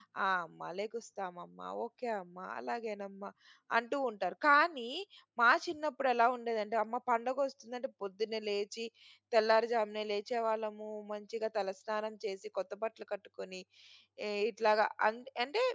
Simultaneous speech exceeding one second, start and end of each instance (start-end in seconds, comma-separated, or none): none